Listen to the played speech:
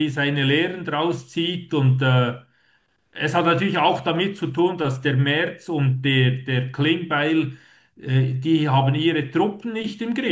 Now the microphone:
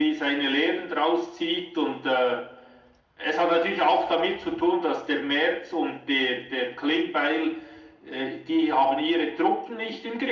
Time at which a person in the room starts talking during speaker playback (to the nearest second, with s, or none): none